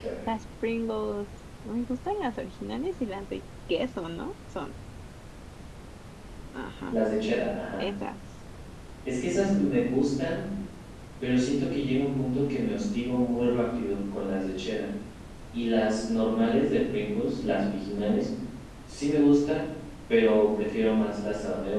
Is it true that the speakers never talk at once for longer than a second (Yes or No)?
Yes